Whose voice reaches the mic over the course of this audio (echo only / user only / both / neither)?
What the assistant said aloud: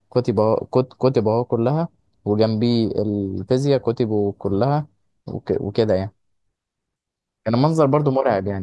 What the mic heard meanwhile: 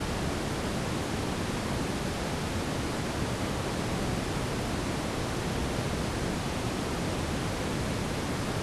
neither